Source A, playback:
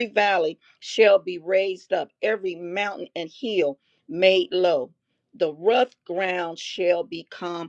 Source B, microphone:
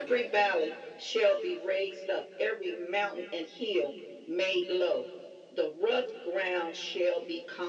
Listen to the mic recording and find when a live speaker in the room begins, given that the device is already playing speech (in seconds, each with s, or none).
none